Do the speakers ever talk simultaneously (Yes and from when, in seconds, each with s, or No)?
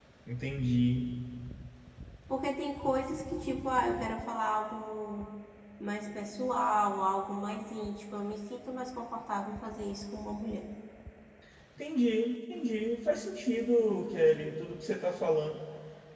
No